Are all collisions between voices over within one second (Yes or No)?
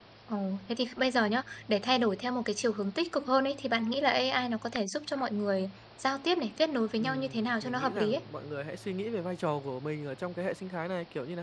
No